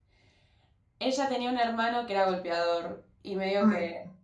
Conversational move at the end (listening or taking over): listening